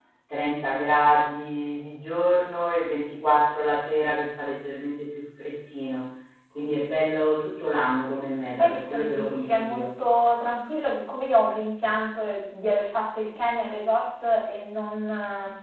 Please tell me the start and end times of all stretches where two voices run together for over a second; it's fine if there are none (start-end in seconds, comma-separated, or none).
8.6-9.9